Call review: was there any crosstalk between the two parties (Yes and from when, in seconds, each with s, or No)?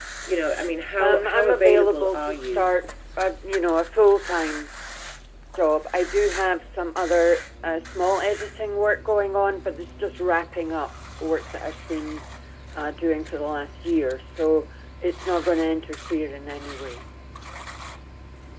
Yes, from 1.0 s